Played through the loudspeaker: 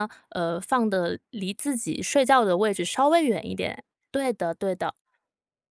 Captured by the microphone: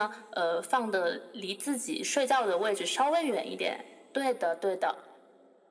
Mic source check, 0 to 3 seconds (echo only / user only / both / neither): echo only